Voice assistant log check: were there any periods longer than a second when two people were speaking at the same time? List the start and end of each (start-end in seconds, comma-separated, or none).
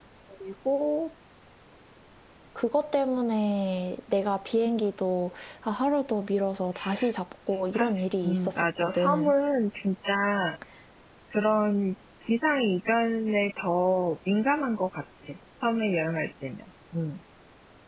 7.8-9.3